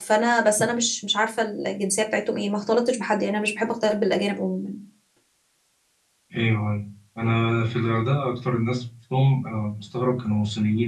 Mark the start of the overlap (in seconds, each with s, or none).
none